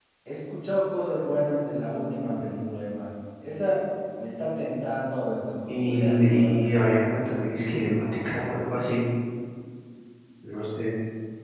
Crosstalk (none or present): present